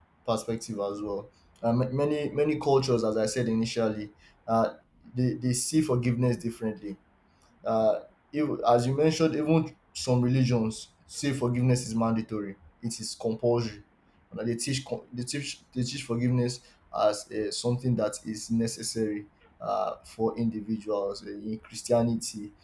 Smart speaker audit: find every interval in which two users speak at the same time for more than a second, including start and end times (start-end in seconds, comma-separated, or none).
none